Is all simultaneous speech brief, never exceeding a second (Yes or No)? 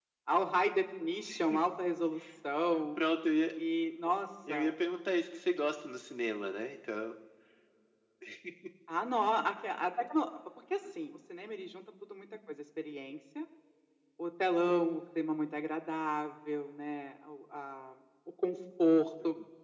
Yes